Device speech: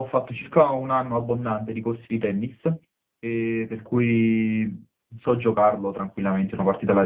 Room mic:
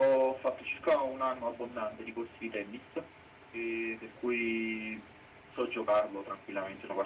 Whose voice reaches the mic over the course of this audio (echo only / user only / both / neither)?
echo only